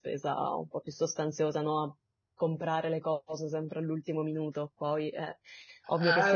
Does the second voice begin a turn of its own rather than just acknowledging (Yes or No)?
Yes